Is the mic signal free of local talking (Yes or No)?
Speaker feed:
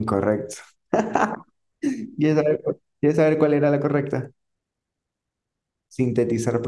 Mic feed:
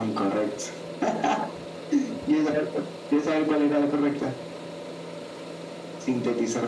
Yes